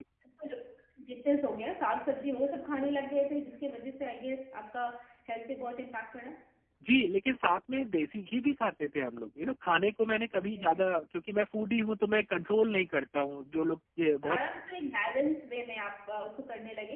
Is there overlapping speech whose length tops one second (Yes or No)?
No